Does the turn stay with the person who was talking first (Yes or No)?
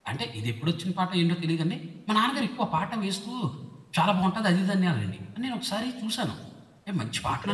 Yes